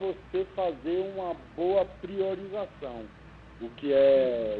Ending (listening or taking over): listening